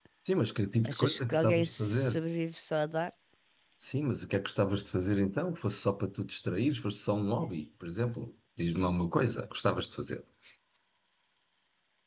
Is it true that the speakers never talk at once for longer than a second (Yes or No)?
No